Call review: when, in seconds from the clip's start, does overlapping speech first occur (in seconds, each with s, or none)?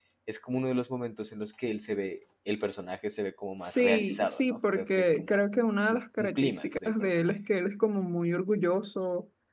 3.6 s